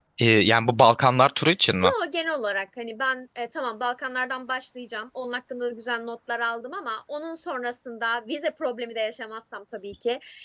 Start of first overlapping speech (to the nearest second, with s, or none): none